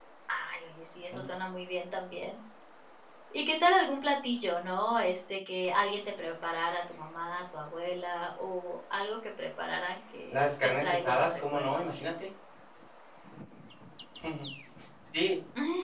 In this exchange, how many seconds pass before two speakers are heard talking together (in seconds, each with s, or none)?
10.3 s